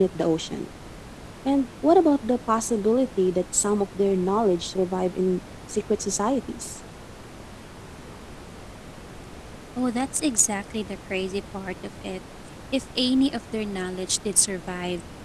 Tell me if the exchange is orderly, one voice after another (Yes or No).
Yes